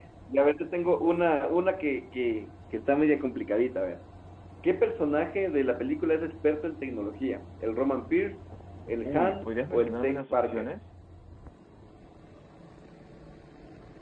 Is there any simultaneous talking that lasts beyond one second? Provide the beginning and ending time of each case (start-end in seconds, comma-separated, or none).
9.0-10.7